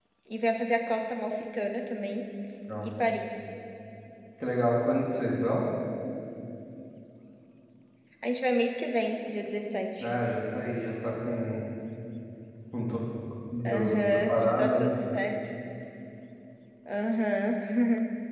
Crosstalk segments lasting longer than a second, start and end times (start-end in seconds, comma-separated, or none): 13.7-14.9